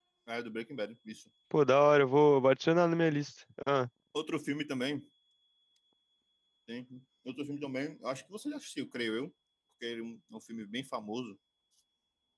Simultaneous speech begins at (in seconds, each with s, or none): none